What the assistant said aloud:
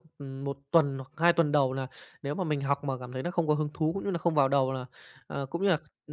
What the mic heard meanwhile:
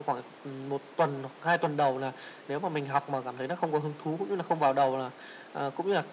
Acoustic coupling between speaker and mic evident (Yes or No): Yes